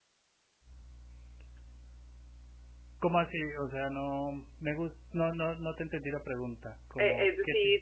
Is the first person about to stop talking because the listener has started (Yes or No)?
Yes